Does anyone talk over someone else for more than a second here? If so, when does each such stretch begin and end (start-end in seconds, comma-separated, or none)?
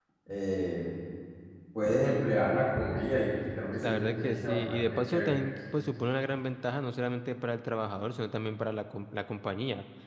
3.8-5.5